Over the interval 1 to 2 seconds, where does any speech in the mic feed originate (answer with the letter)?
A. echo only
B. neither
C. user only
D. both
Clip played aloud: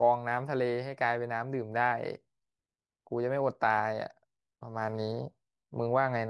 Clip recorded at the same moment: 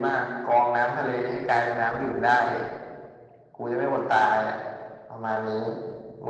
A